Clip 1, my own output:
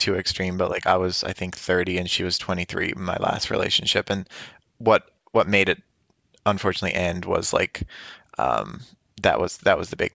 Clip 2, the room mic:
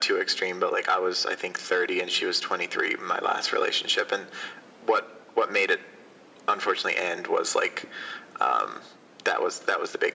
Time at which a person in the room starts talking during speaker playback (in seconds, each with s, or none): none